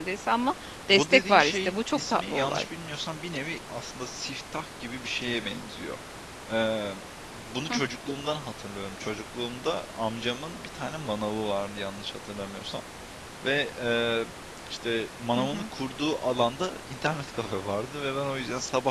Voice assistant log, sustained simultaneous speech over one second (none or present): present